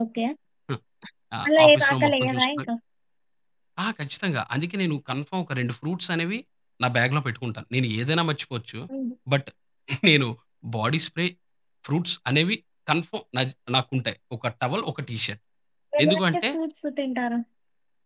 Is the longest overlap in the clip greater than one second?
Yes, from 1.4 s

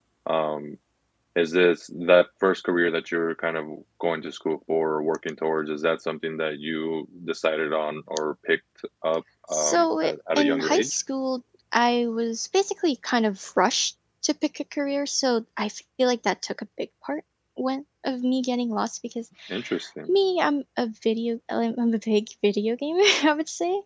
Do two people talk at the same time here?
Yes, from 9.5 s

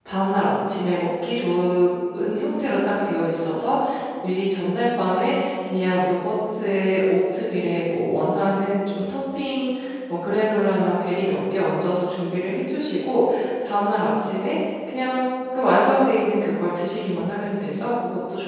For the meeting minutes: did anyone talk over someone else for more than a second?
No

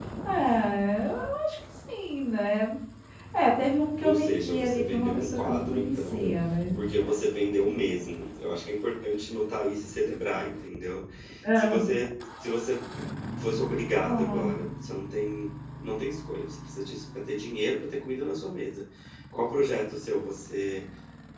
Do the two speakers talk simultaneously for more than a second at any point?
Yes, from 4.0 s

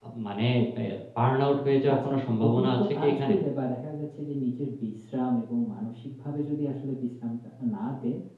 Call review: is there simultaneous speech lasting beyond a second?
Yes, from 1.9 s

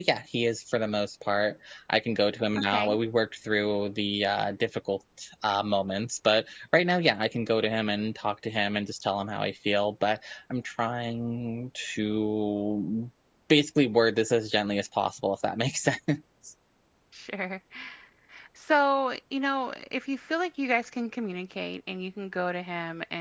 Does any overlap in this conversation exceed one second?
No

